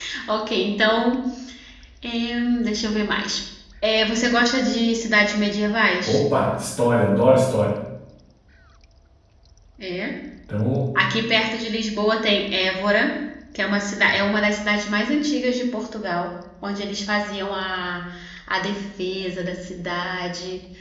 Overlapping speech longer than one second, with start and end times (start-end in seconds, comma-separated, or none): none